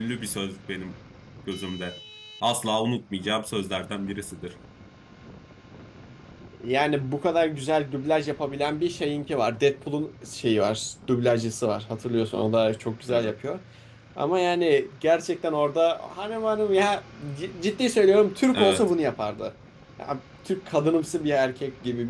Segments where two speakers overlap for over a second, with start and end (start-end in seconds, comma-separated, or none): none